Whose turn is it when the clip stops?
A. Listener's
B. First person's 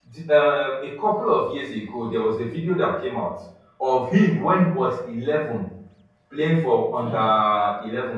B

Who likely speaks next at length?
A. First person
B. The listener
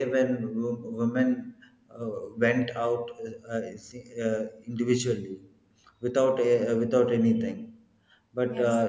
A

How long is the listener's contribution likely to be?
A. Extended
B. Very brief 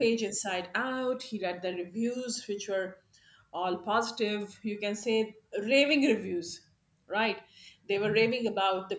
B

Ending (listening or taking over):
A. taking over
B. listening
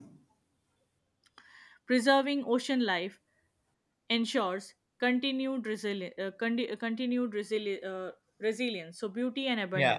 A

